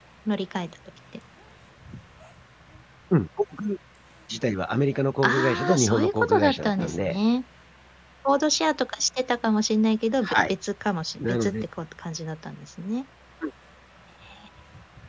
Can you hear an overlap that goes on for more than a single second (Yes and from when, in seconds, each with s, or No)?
Yes, from 5.2 s